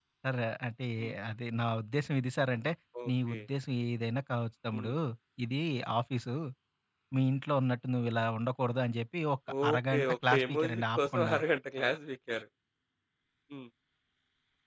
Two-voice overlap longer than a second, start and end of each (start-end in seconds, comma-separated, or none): 9.6-11.2